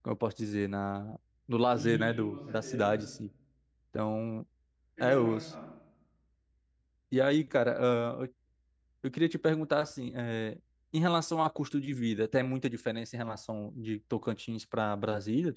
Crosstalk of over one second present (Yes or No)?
Yes